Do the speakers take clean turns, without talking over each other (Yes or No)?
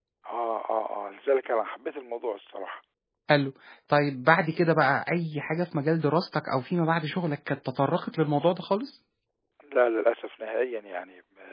Yes